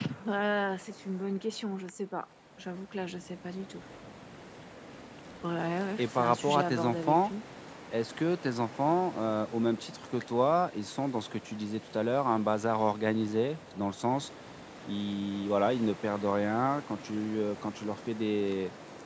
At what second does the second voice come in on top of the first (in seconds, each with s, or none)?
6.0 s